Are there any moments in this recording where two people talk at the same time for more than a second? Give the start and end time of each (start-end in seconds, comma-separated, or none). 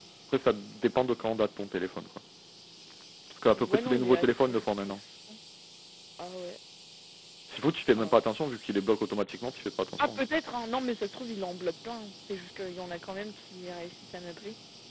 3.6-5.0